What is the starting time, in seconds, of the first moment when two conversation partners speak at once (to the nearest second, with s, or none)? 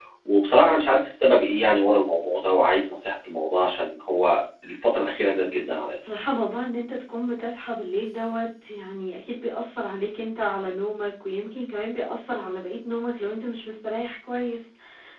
none